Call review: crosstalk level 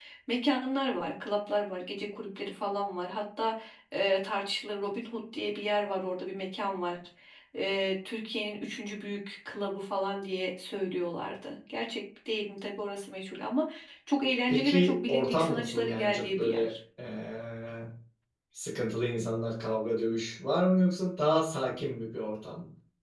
present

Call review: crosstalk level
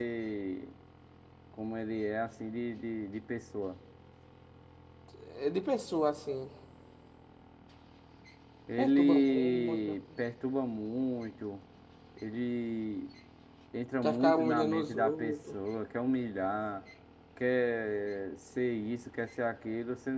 present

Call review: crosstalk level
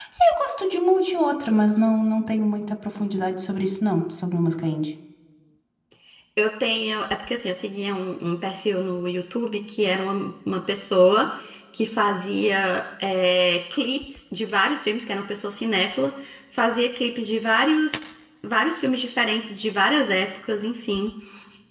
none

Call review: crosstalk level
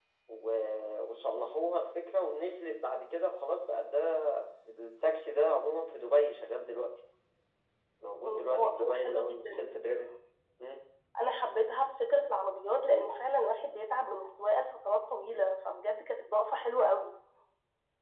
present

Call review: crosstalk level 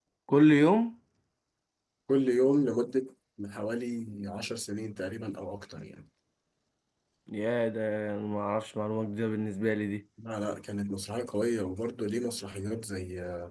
none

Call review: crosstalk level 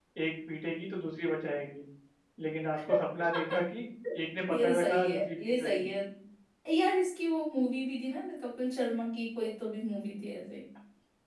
present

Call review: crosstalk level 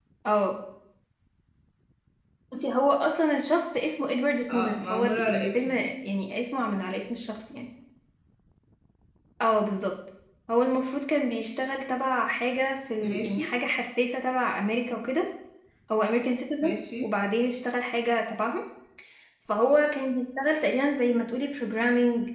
present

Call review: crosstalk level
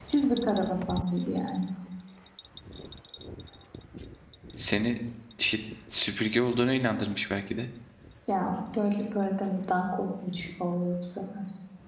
none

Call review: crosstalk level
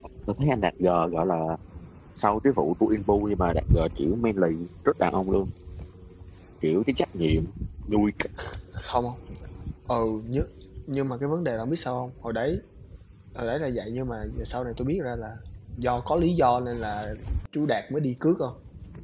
none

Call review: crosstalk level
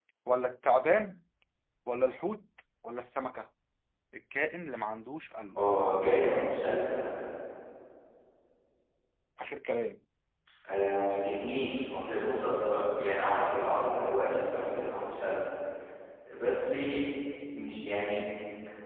none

